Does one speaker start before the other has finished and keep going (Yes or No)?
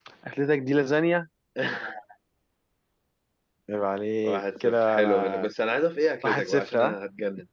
Yes